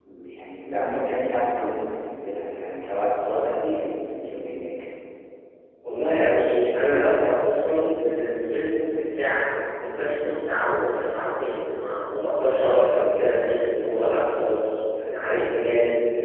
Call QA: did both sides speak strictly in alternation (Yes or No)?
Yes